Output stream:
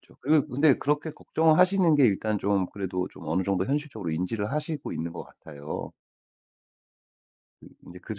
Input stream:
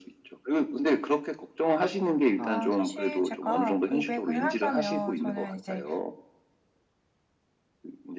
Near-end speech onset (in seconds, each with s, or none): 2.3 s